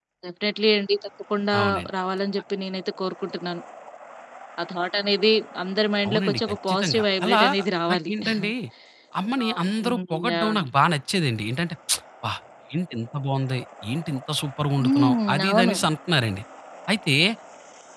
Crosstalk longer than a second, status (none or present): present